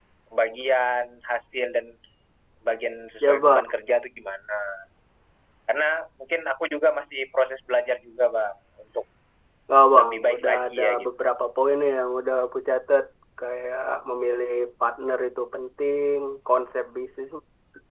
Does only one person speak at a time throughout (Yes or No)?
No